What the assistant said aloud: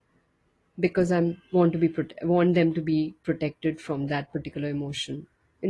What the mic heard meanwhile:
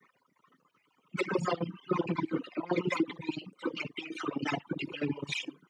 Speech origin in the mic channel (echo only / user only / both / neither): echo only